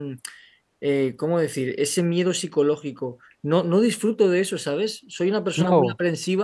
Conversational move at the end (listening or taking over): listening